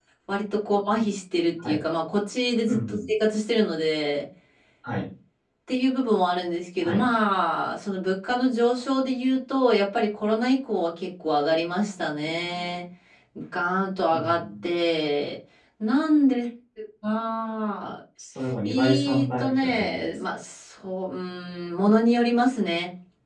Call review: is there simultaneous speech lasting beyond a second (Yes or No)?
Yes